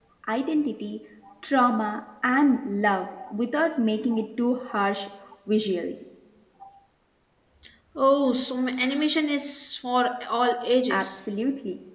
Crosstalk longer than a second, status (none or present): none